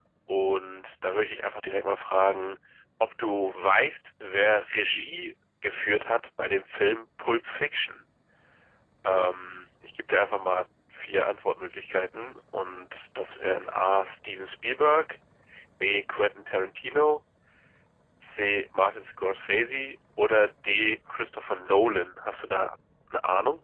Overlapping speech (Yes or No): No